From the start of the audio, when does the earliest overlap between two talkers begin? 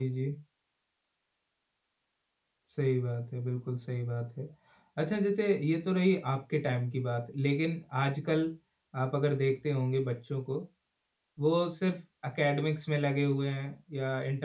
none

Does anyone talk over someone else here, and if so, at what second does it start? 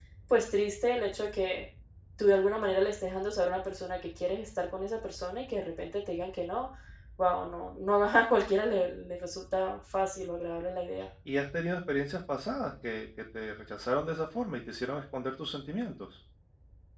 none

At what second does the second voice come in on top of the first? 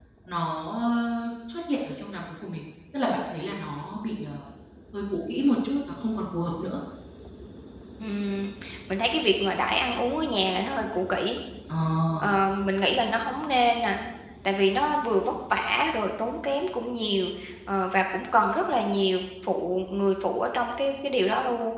none

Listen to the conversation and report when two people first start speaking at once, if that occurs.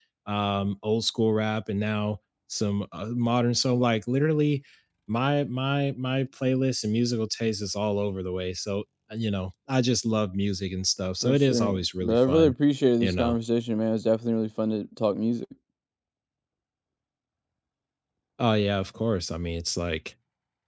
11.2 s

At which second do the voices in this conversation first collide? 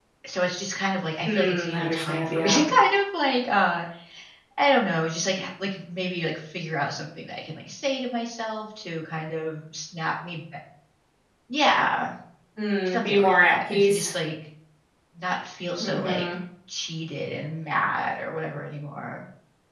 1.2 s

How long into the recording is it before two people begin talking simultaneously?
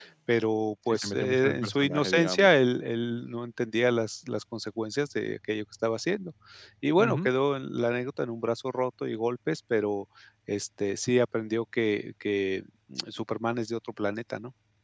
0.9 s

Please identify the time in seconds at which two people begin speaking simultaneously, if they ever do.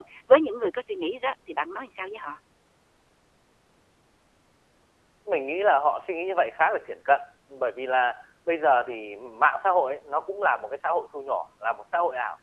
none

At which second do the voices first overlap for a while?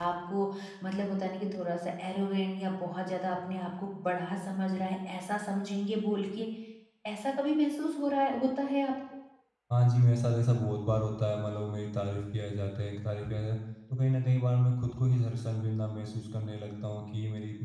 none

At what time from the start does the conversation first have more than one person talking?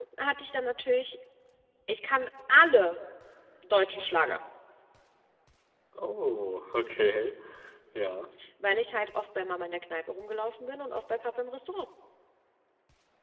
none

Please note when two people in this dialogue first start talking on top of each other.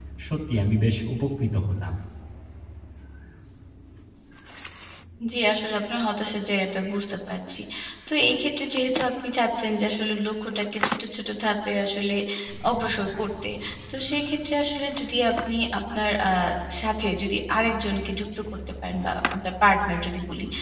none

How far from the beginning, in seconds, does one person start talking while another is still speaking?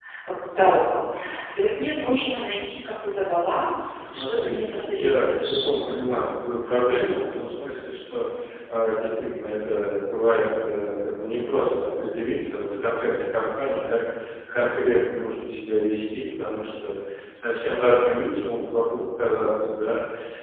4.1 s

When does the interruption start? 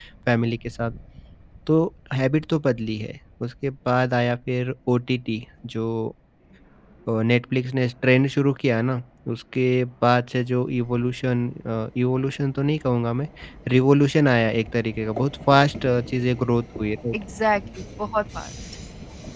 none

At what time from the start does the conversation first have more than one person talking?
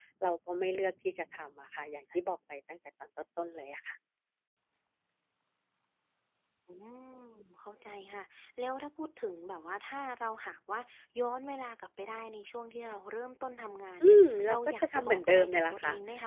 14.0 s

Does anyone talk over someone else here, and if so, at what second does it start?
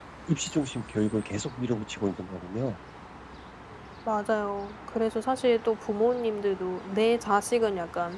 none

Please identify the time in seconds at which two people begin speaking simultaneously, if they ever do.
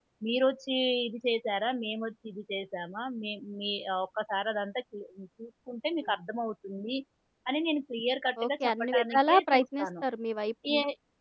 8.4 s

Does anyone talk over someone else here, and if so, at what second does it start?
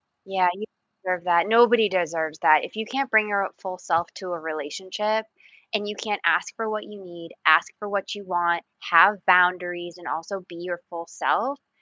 none

